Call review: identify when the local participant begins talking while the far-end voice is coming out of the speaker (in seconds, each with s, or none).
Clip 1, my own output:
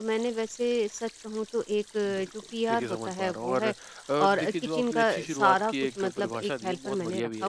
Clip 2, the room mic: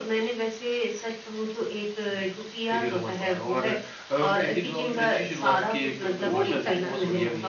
6.2 s